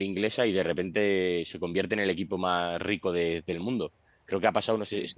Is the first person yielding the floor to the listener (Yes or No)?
No